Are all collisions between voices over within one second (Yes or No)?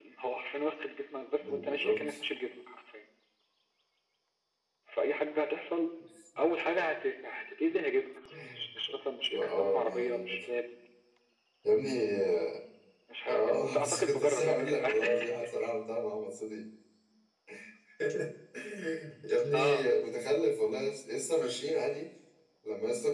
No